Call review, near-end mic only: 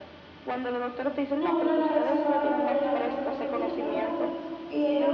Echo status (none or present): present